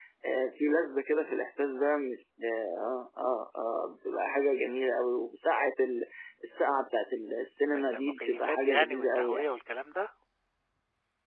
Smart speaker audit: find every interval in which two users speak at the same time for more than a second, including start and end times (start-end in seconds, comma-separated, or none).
7.6-9.5